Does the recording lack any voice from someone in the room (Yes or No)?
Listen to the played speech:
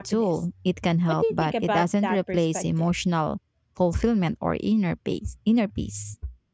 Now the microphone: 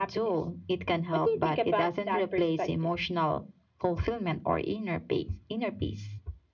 Yes